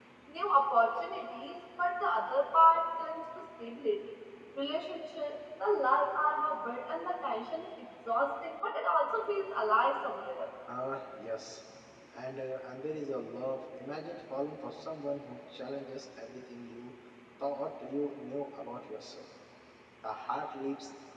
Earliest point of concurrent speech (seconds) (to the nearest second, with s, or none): none